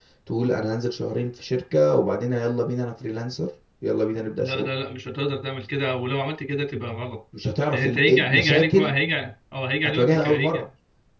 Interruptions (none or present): present